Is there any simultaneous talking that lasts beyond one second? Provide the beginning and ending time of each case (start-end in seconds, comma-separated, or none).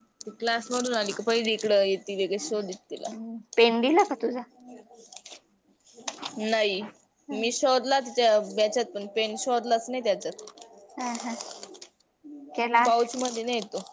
none